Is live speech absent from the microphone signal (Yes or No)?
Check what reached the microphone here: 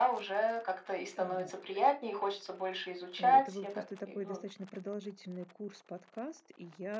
No